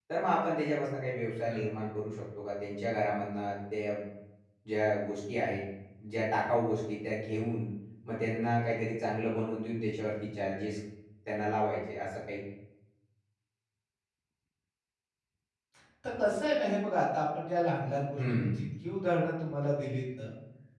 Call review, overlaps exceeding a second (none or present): none